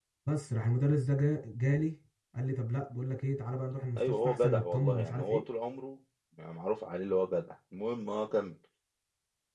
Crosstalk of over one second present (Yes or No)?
Yes